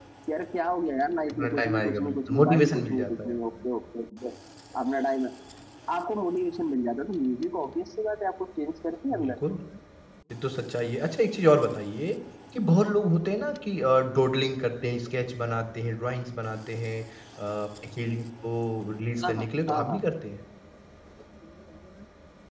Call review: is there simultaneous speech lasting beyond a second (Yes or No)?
Yes